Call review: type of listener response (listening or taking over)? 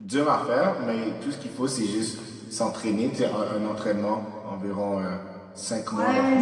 taking over